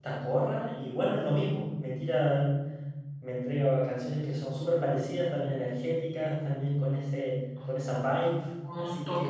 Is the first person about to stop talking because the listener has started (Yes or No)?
Yes